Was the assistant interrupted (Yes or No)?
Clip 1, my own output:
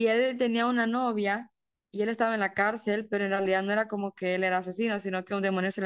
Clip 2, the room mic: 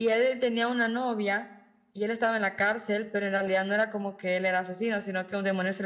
No